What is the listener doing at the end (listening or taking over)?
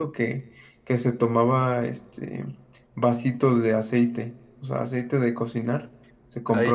listening